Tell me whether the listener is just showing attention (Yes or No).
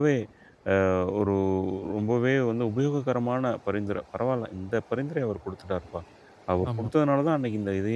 Yes